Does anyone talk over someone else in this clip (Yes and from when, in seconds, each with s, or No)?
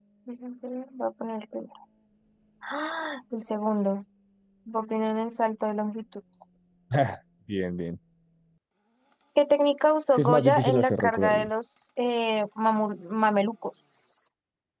Yes, from 10.2 s